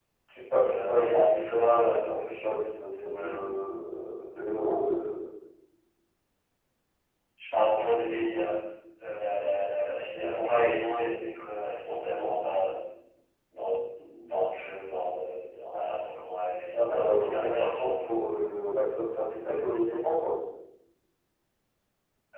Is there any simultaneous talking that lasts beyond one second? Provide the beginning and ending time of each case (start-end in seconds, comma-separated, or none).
0.5-2.3, 16.7-18.3